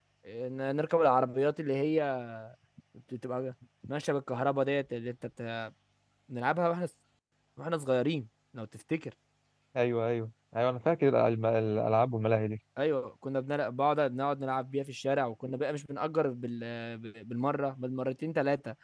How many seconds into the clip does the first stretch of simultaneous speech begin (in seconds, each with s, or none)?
none